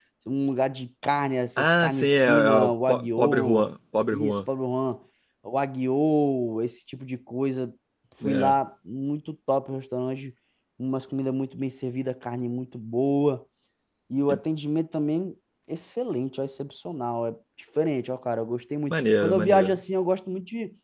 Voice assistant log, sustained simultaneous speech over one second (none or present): present